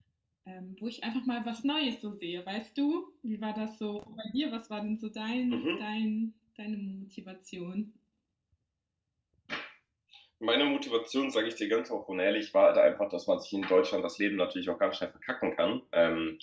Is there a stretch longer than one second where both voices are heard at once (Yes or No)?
No